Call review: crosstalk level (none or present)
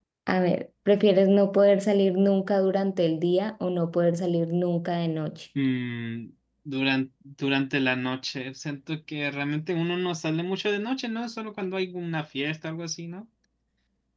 none